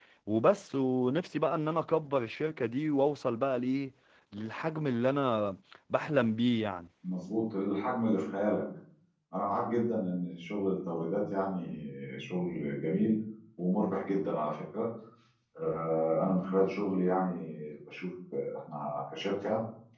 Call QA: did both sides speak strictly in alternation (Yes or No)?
Yes